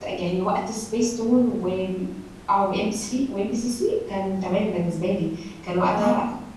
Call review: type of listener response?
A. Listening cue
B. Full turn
A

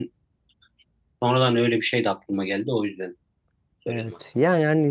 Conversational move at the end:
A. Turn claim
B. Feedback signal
A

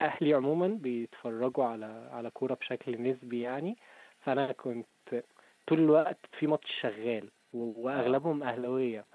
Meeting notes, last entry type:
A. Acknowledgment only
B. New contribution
A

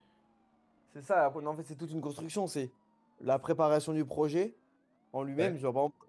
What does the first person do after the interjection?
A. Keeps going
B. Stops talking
A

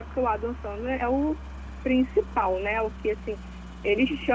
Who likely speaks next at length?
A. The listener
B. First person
A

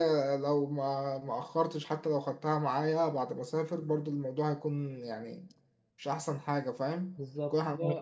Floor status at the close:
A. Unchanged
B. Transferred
B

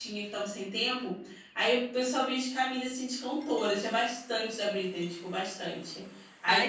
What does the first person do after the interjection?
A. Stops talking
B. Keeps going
B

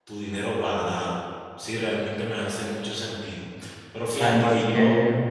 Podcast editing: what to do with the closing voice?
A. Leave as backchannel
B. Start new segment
B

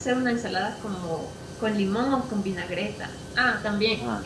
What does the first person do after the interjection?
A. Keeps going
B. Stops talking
A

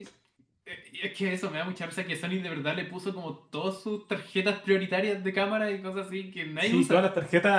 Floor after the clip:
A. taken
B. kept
A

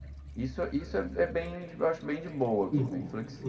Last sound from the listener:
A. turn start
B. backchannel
A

